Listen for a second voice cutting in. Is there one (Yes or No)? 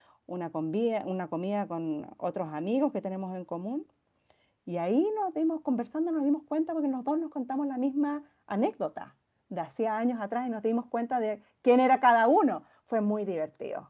No